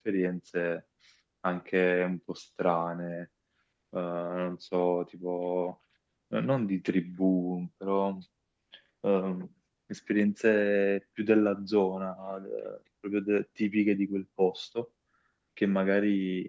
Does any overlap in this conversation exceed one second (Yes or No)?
No